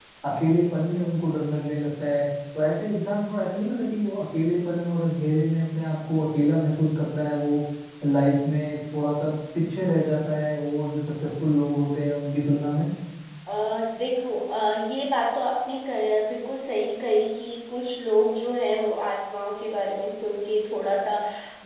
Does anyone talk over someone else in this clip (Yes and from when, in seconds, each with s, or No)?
No